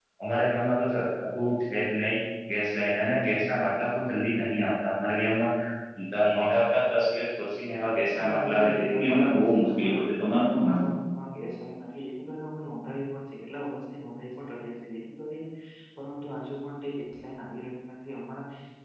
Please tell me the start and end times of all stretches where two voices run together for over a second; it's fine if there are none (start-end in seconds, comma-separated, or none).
8.2-10.9